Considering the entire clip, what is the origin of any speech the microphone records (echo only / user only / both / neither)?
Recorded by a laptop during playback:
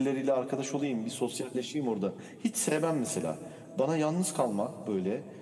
echo only